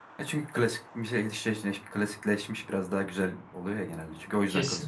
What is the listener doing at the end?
taking over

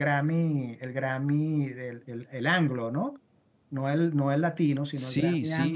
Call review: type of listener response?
taking over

